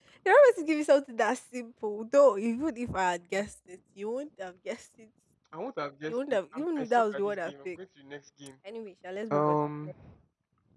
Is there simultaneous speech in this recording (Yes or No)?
Yes